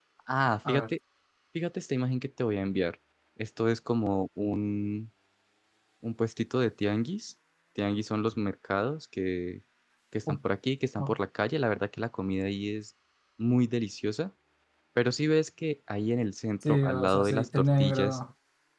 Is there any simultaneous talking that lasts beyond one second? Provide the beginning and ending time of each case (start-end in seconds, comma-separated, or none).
16.6-18.2